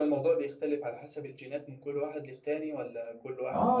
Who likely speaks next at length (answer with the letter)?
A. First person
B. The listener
B